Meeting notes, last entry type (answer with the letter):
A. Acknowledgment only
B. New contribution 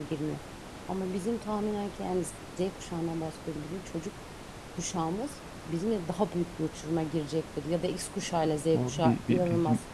B